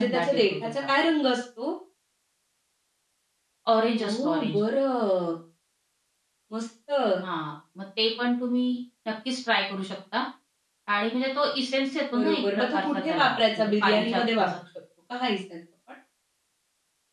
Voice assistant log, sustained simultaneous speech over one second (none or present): present